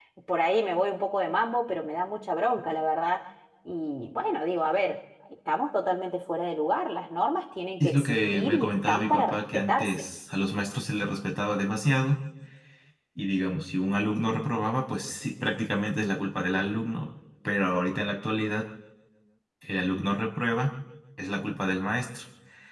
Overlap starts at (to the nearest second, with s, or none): 8 s